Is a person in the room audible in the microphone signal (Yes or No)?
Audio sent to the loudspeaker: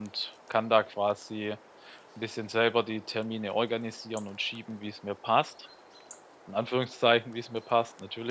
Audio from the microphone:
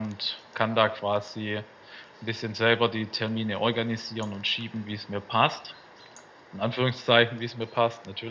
No